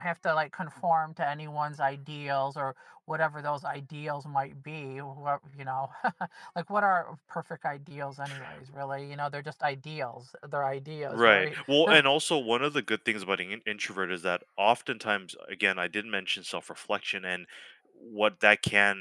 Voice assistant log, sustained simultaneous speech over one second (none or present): none